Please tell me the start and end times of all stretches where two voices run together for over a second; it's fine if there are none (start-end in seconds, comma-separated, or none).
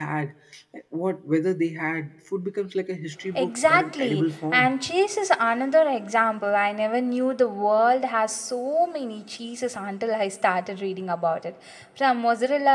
3.4-4.7